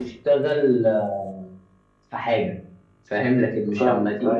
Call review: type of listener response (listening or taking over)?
listening